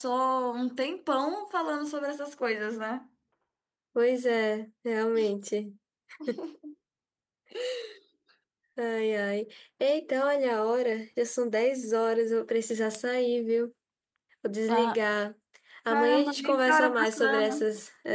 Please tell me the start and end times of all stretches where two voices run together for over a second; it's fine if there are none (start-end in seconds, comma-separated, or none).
15.9-17.6